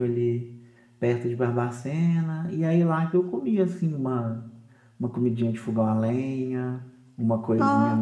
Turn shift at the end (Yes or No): No